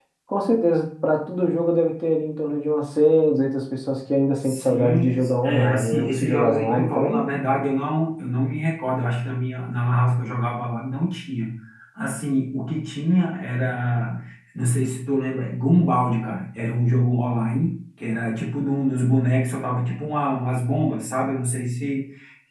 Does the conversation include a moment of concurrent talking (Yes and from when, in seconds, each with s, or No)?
Yes, from 4.4 s